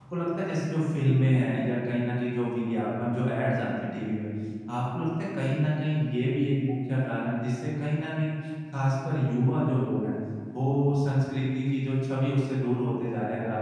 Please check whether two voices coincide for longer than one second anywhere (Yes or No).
No